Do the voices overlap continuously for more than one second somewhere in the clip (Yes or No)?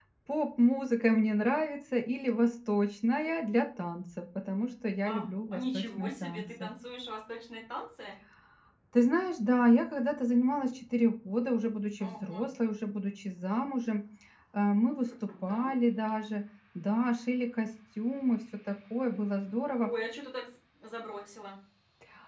Yes